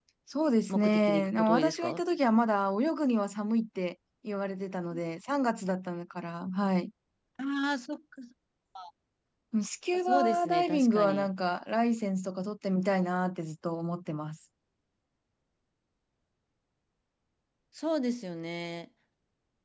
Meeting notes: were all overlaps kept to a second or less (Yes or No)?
No